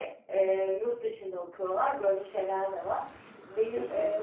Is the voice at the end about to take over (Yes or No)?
No